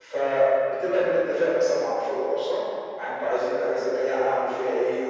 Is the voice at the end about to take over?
No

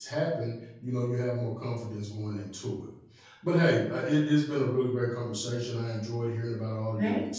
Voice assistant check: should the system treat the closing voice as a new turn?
No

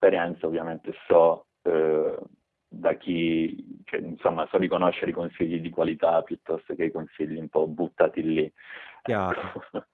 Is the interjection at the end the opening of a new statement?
Yes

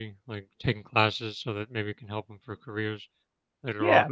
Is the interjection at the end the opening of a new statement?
Yes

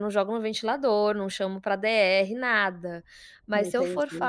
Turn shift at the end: No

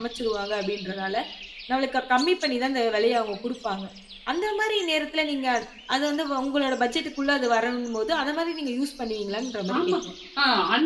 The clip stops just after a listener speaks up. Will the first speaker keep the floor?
No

